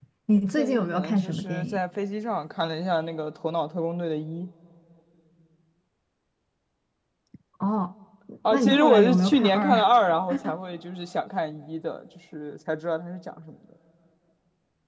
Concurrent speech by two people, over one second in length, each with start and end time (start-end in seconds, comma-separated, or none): 0.6-1.8, 8.5-9.9